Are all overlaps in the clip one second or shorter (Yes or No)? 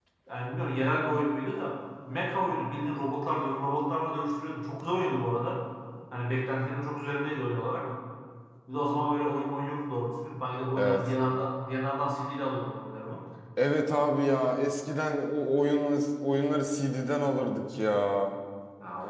Yes